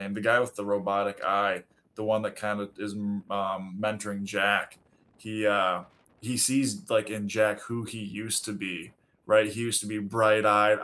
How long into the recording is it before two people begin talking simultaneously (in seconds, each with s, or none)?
none